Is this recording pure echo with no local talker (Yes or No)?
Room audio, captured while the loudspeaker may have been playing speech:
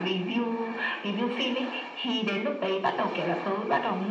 Yes